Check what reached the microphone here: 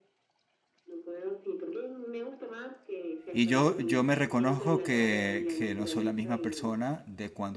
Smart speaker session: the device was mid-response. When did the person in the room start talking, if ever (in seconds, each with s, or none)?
3.3 s